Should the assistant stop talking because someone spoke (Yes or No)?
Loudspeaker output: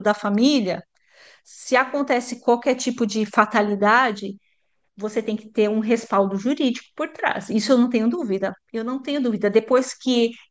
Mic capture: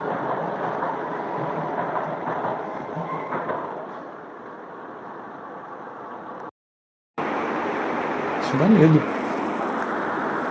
Yes